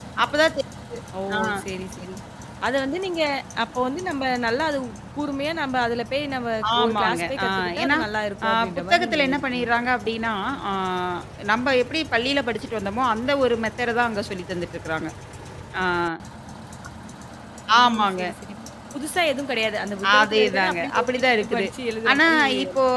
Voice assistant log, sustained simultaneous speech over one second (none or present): present